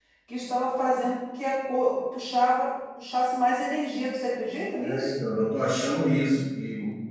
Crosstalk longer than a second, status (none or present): none